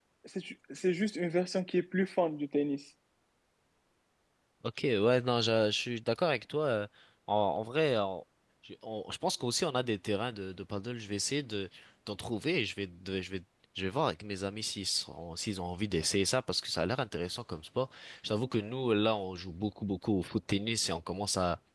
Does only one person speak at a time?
Yes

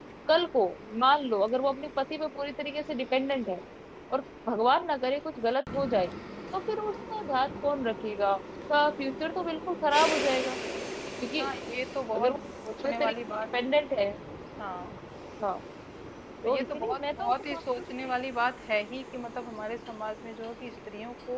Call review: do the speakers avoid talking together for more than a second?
No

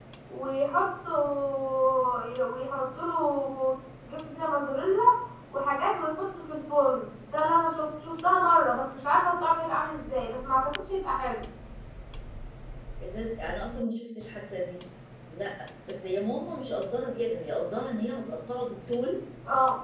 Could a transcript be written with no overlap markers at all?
Yes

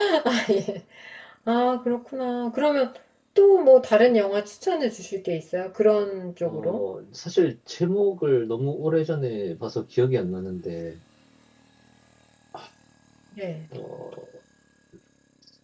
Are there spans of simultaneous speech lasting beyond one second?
No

